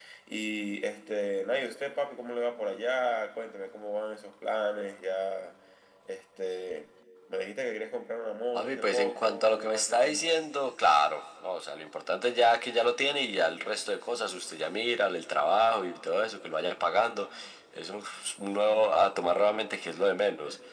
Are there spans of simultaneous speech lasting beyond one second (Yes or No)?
Yes